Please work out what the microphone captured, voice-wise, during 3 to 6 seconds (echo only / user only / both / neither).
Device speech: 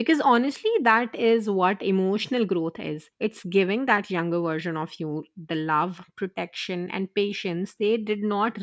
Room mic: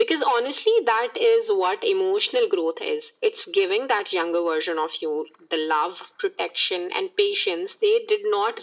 echo only